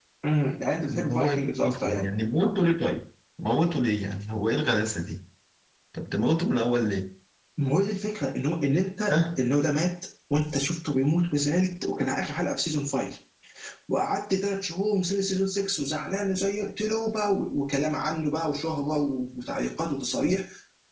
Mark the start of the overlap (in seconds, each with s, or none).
0.9 s